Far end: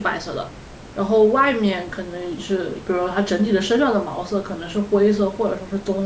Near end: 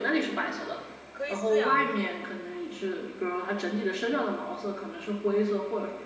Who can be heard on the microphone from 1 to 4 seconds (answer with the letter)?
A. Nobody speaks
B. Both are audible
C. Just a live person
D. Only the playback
B